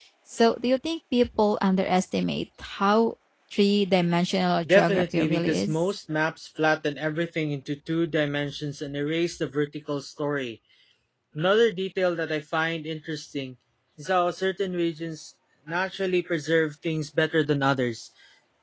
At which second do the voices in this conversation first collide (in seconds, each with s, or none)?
4.7 s